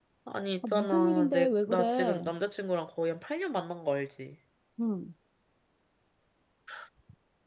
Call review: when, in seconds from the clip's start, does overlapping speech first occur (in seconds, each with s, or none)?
0.7 s